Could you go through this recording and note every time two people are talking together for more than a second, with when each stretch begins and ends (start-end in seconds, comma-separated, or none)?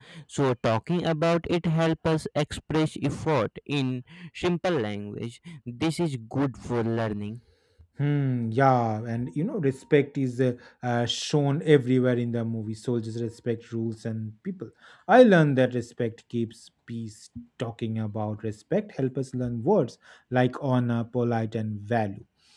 none